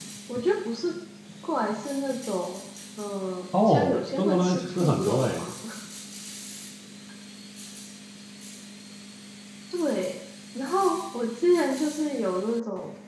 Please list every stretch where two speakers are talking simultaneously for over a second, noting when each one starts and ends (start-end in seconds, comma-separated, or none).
3.6-5.5